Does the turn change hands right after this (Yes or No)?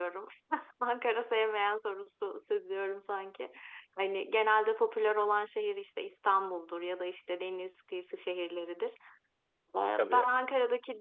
No